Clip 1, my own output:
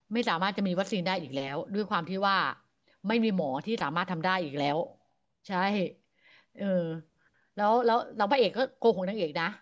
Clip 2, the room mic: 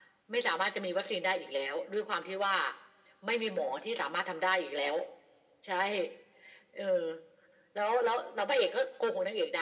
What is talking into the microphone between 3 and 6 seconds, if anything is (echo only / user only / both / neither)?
echo only